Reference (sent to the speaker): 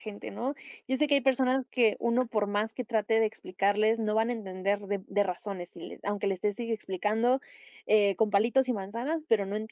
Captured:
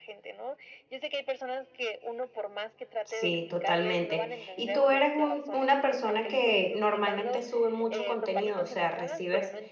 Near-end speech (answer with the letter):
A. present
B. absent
A